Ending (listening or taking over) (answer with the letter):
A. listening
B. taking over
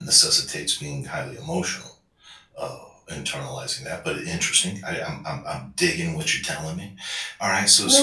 B